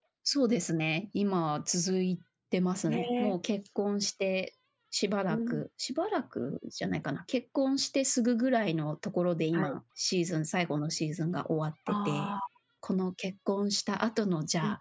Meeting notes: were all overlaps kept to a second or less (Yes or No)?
Yes